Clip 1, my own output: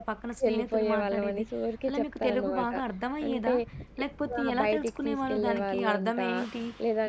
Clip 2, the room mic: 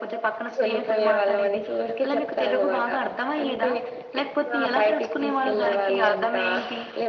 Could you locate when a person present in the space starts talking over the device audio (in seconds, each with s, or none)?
none